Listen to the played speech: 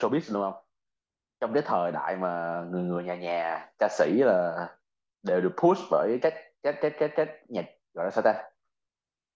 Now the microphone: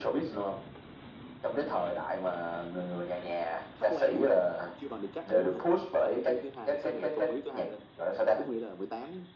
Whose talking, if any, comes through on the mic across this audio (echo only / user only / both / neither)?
both